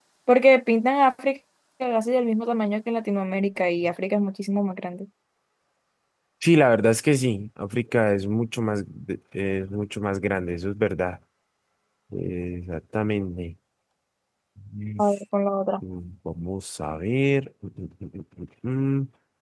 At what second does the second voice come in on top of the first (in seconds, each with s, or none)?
none